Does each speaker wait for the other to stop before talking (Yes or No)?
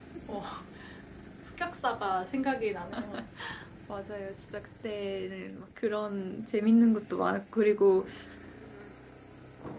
Yes